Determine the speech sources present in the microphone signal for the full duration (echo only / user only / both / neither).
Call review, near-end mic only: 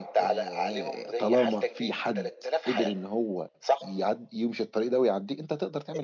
both